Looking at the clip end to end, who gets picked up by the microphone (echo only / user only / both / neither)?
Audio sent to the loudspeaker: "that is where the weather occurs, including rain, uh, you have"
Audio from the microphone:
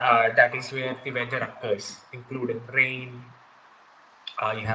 echo only